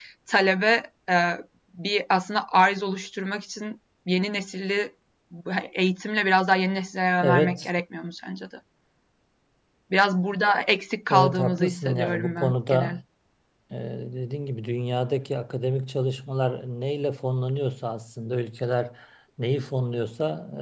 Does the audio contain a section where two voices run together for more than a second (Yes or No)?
Yes